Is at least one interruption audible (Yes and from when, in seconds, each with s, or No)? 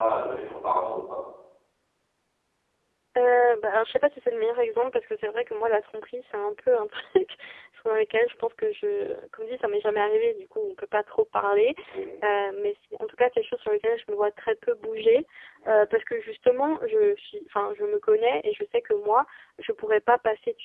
No